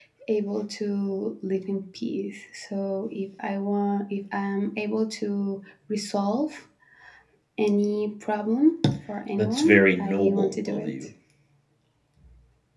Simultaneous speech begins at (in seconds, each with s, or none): 9.4 s